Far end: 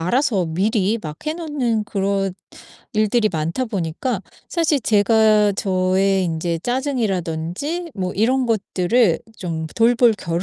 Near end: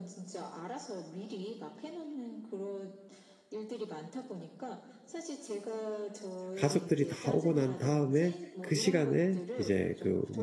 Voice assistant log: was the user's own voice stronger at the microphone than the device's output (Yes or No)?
Yes